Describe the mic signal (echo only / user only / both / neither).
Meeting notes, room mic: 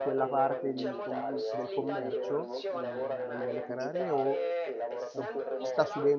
both